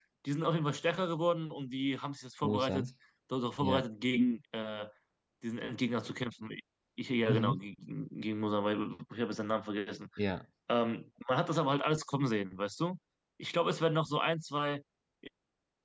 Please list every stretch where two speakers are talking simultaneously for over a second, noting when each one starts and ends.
none

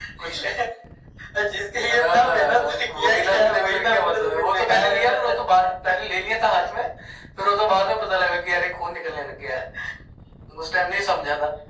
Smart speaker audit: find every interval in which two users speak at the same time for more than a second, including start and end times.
1.9-5.2

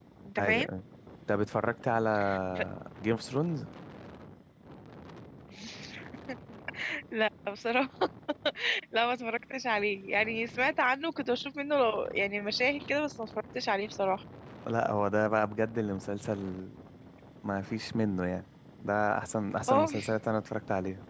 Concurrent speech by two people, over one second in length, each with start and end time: none

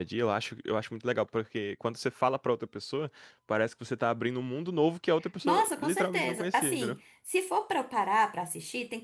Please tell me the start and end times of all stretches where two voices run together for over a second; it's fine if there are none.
5.4-7.0

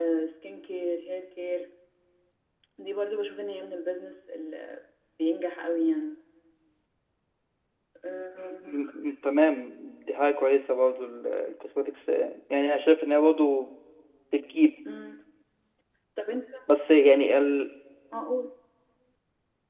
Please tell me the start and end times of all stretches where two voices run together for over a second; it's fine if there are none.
none

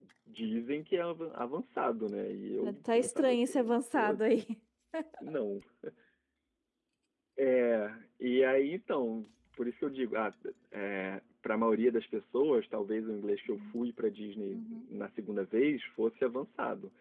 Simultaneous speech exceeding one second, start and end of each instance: 2.6-4.2

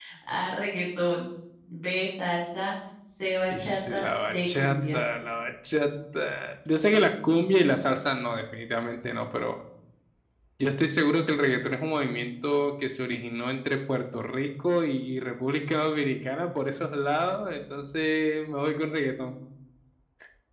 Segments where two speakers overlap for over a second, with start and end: 3.5-5.0

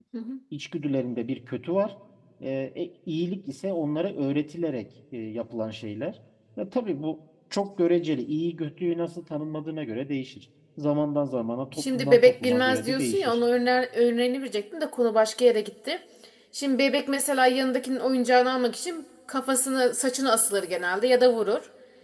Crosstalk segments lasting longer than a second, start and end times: 11.8-13.4

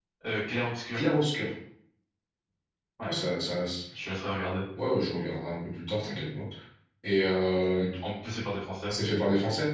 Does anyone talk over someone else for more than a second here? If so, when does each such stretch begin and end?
none

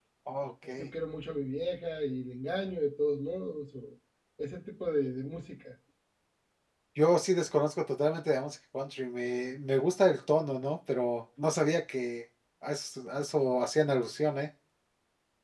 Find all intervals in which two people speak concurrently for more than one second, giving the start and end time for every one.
none

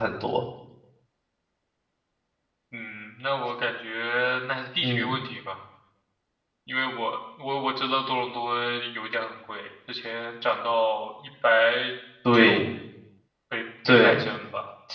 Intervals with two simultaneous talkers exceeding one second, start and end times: none

